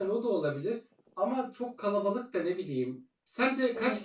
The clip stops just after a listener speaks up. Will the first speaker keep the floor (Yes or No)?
Yes